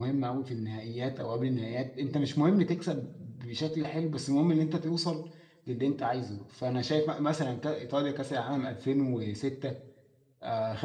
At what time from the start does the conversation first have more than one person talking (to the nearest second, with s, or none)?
none